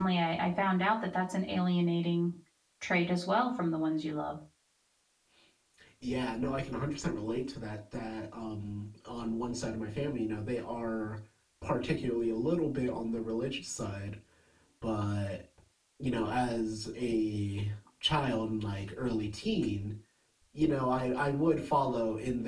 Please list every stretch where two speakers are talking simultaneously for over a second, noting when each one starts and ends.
none

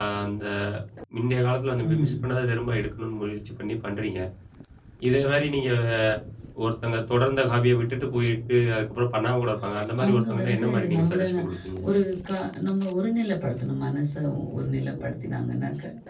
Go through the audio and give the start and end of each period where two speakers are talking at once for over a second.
10.0-11.4

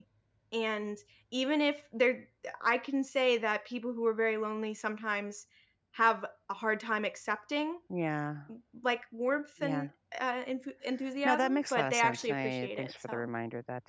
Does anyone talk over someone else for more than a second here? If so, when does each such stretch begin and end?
11.2-13.3

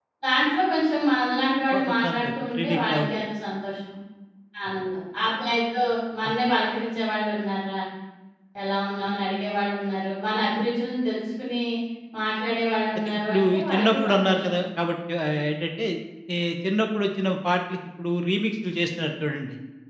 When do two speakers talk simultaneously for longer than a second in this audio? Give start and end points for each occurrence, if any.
1.7-3.1, 13.0-14.5

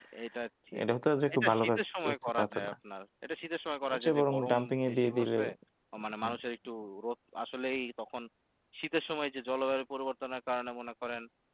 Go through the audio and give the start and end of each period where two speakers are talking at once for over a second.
1.3-2.7, 3.9-5.4

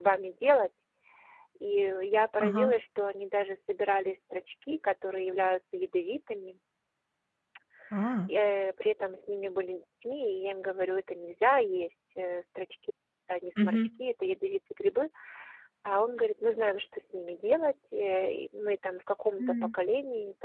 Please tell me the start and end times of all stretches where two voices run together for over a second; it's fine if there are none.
none

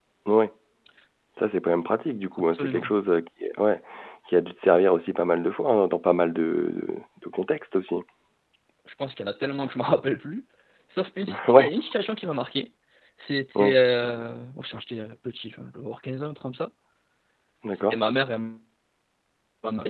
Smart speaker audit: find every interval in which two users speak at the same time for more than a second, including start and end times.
none

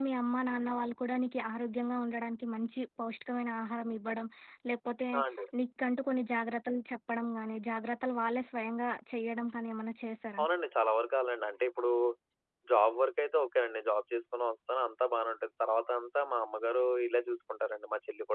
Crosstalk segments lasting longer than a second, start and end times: none

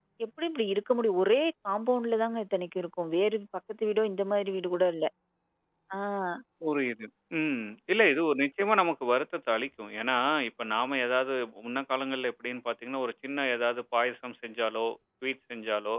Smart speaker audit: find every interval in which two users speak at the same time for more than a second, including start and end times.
none

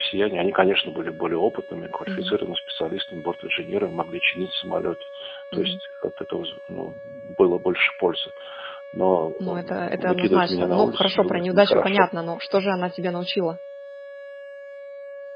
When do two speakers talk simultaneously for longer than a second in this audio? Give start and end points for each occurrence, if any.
9.4-12.1

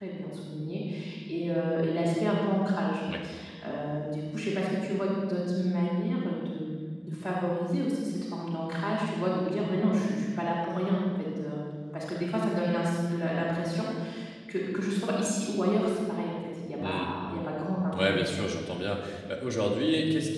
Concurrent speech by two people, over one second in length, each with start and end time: none

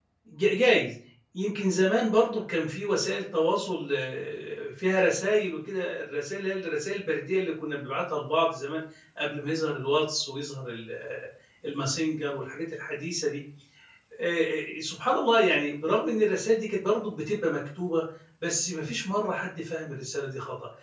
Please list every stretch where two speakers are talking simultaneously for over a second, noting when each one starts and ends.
none

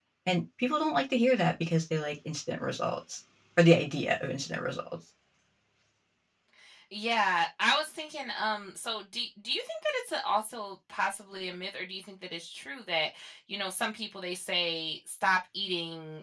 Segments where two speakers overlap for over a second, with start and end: none

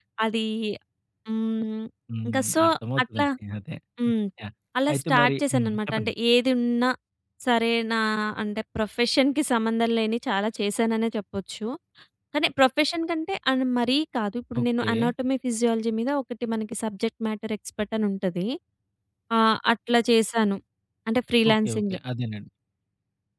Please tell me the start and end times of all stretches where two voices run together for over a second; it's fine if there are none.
4.9-6.1

